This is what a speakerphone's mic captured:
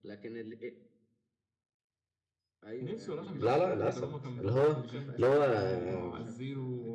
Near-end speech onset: 3.4 s

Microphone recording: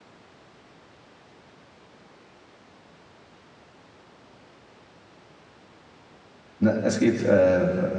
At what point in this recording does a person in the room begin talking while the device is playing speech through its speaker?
6.6 s

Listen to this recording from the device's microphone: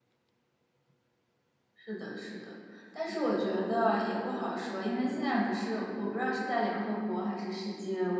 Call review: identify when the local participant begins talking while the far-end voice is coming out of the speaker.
1.7 s

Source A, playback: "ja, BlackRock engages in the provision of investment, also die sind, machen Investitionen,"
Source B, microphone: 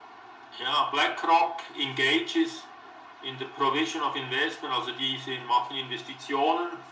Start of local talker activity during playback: none

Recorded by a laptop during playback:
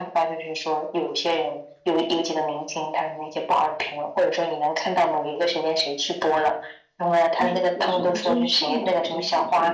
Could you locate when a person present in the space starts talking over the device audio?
7.3 s

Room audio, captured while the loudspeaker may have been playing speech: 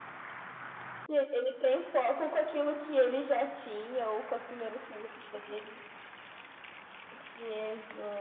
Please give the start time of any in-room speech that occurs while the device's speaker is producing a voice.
none

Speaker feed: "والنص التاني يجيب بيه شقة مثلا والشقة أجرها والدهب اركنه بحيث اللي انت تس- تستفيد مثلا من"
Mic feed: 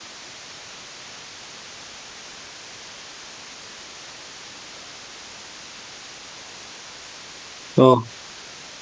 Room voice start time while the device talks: 7.8 s

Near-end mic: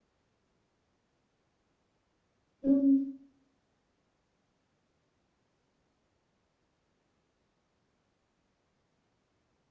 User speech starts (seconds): 2.6 s

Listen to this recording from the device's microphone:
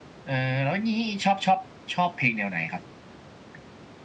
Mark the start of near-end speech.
none

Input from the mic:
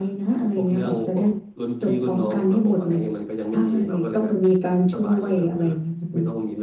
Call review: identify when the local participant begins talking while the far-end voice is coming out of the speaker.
none

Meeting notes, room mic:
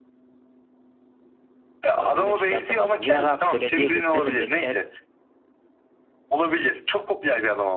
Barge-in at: 1.9 s

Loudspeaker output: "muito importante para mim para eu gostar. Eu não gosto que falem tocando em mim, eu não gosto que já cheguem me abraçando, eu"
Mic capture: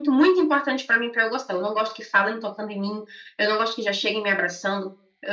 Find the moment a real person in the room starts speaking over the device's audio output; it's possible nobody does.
none

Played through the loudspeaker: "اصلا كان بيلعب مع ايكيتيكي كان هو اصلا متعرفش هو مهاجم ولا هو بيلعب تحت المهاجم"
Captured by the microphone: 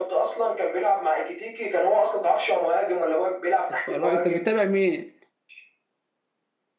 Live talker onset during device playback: 3.7 s

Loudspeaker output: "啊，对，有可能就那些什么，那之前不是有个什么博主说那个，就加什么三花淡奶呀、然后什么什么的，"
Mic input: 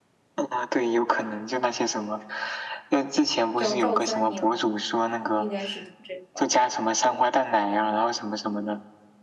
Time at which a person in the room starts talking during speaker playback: 3.6 s

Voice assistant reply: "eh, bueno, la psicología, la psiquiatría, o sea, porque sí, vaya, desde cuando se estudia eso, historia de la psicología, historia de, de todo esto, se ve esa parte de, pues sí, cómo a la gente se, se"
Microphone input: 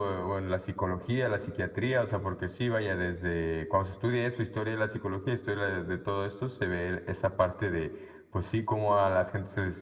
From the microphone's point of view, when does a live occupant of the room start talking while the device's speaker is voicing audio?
none

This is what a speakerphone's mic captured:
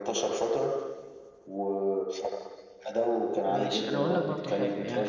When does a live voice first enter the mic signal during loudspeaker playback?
3.4 s

